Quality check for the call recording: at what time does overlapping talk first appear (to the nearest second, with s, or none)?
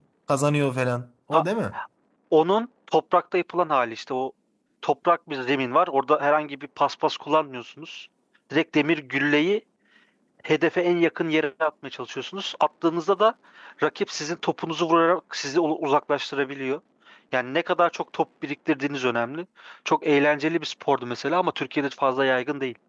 none